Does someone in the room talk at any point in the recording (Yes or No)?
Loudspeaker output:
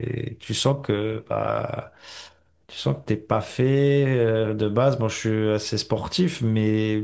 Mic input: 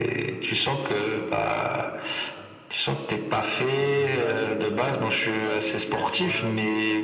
Yes